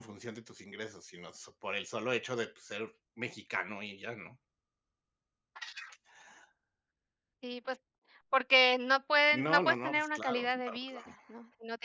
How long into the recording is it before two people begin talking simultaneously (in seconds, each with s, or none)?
9.3 s